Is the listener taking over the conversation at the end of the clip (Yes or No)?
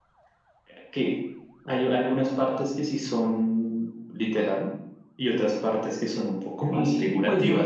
Yes